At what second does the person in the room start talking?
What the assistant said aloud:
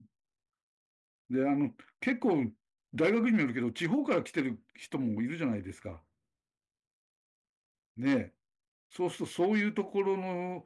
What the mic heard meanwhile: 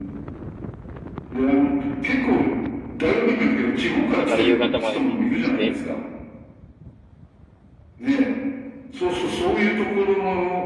4.0 s

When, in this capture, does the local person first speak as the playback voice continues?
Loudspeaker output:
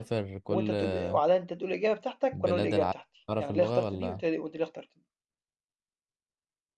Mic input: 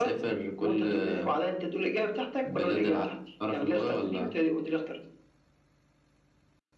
none

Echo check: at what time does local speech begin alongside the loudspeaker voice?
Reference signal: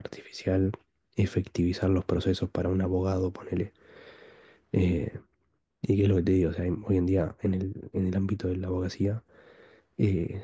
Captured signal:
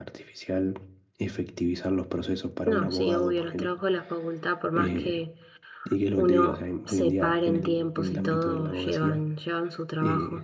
2.6 s

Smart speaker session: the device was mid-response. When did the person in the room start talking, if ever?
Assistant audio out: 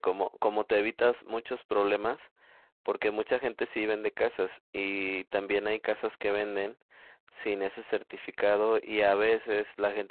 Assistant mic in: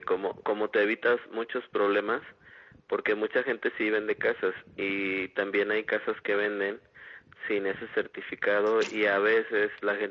none

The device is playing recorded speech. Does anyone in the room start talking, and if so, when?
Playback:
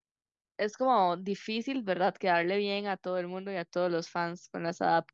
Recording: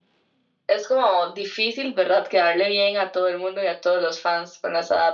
none

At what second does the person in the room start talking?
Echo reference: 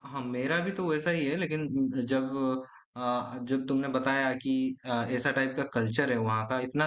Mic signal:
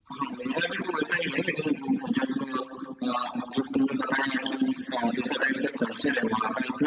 none

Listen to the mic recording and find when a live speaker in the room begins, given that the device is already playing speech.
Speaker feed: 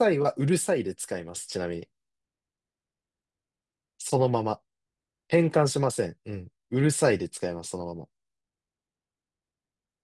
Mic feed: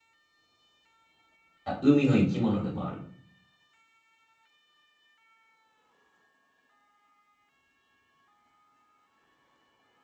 1.6 s

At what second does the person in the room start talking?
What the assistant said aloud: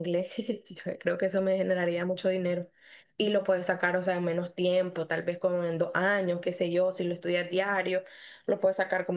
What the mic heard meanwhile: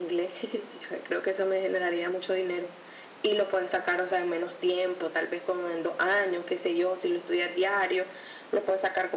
none

